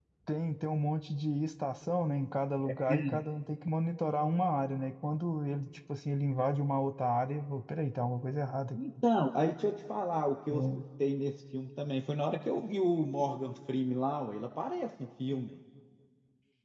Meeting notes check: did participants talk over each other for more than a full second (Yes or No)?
No